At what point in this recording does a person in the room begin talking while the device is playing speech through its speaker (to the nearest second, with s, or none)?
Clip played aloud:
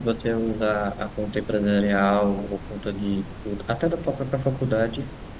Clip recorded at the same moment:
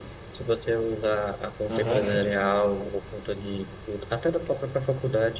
2 s